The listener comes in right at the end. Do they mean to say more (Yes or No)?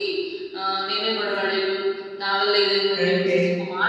No